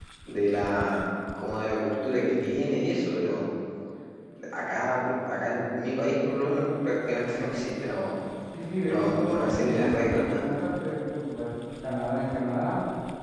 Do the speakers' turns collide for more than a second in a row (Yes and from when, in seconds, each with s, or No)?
Yes, from 8.9 s